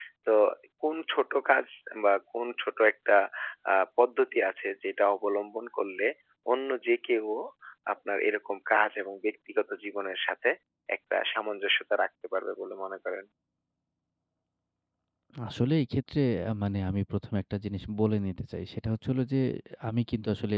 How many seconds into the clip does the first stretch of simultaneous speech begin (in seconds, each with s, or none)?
none